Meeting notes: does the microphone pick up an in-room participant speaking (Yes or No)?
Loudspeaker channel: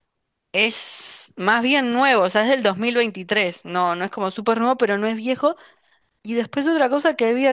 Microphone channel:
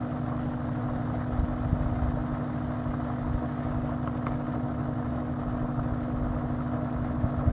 No